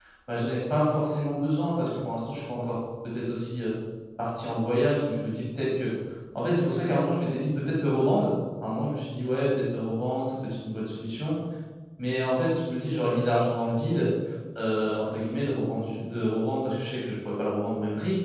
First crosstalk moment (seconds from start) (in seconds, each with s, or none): none